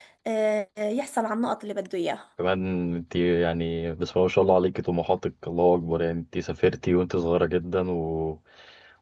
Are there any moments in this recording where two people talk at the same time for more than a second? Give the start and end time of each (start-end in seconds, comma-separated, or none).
none